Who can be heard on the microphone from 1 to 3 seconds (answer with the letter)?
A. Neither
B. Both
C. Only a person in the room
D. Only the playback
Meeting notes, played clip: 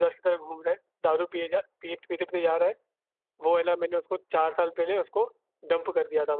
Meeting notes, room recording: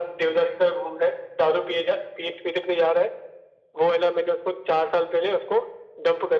D